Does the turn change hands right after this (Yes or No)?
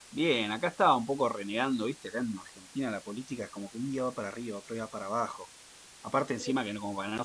No